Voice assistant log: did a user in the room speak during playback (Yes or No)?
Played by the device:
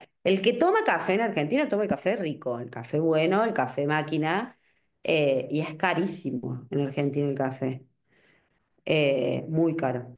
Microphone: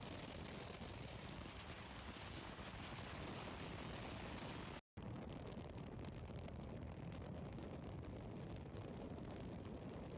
No